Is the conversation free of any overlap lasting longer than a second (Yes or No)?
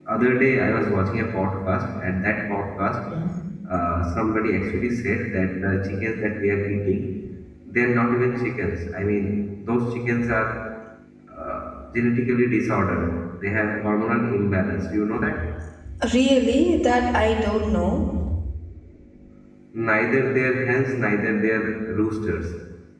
Yes